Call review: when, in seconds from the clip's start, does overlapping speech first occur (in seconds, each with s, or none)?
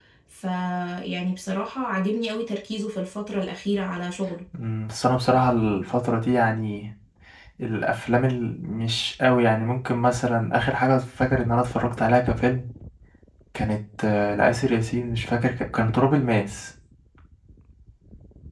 none